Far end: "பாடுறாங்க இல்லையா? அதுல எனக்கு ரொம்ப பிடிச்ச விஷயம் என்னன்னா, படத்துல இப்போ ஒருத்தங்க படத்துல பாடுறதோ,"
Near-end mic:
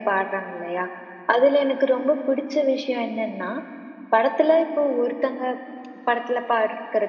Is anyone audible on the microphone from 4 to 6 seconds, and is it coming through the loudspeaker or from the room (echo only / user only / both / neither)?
echo only